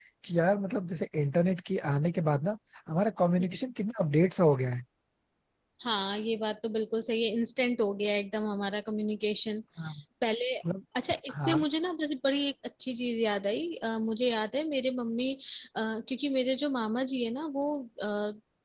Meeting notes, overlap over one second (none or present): none